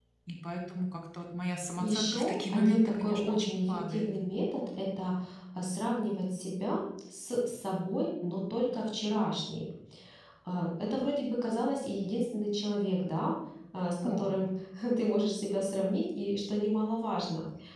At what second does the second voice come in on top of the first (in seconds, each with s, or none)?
1.8 s